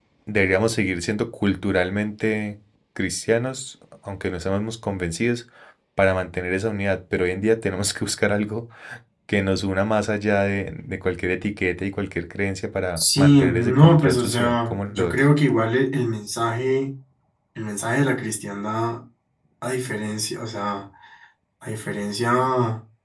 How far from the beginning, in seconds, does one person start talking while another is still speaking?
13.0 s

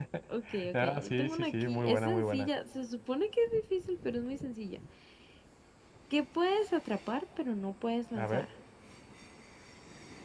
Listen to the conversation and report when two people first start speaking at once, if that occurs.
0.7 s

